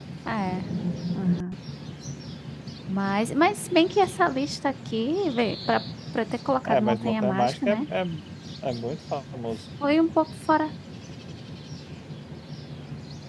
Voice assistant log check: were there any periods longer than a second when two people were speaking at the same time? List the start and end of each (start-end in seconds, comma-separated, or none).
6.7-7.9